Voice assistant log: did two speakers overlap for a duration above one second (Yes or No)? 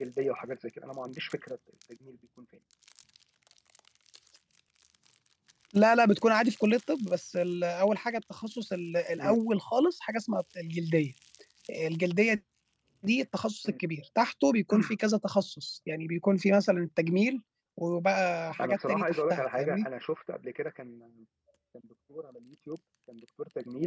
Yes